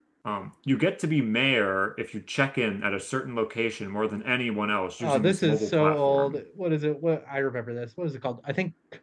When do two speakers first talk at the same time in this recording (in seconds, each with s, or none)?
5.0 s